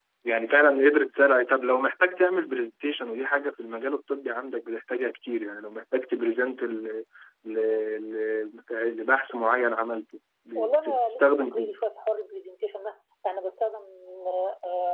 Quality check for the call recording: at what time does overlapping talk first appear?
10.6 s

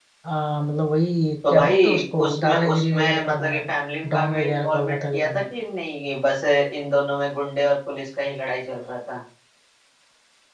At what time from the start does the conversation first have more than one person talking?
1.5 s

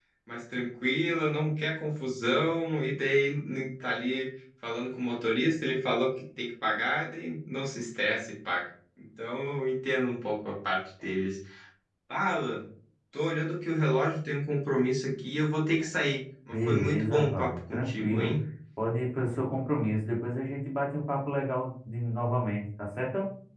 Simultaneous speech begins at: 16.5 s

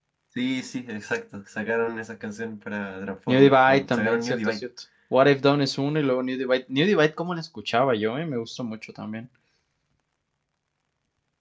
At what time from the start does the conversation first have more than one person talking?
3.3 s

